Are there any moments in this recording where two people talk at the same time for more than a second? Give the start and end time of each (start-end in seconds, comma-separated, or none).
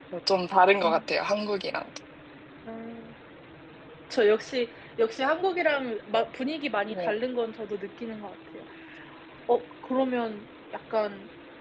none